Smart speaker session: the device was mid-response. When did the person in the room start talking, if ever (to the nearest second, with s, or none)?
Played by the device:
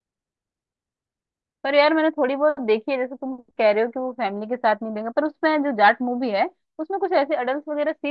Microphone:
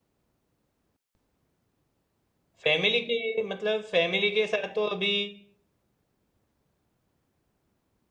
3 s